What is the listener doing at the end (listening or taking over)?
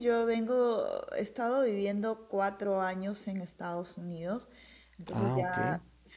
listening